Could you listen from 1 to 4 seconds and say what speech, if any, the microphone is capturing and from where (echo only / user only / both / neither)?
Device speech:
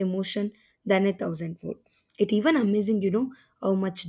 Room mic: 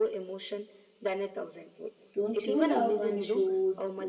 both